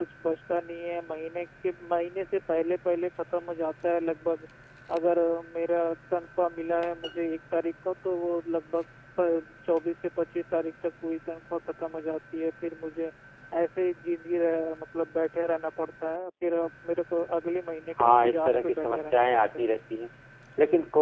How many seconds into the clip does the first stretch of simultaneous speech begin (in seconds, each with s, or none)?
18.0 s